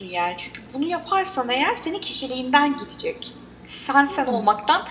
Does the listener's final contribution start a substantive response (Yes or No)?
No